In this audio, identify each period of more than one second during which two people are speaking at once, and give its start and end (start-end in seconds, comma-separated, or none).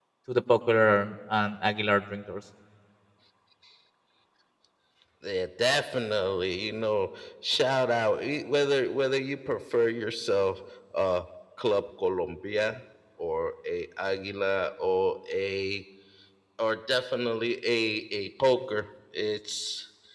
none